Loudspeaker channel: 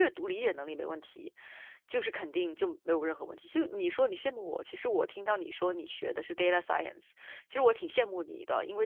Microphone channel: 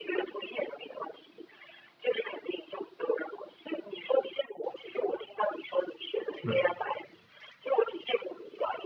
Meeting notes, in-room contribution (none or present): present